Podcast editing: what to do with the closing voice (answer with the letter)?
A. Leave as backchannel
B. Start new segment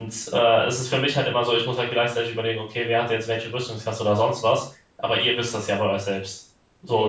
B